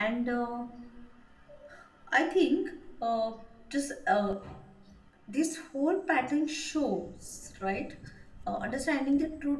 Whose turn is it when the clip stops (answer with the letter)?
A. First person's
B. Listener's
A